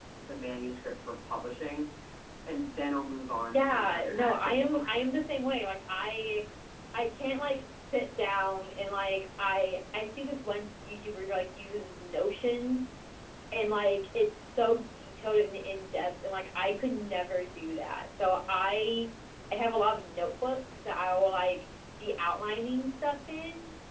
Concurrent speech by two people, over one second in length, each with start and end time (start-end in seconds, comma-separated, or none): 3.5-4.9